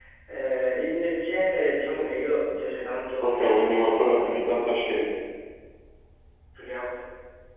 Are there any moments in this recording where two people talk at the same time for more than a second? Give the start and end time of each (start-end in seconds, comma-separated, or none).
3.2-4.6